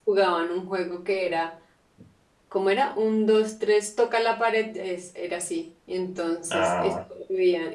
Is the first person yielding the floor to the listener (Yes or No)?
No